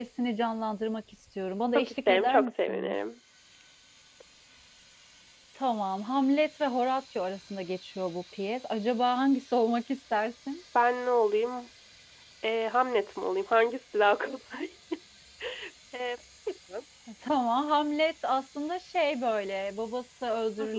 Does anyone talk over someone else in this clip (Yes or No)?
Yes